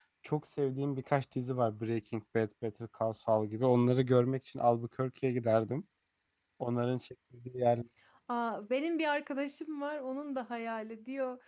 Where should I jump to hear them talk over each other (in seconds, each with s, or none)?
none